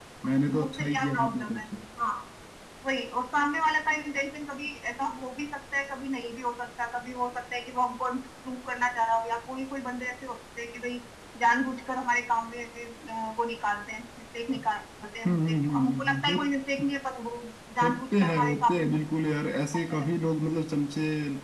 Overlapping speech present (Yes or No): Yes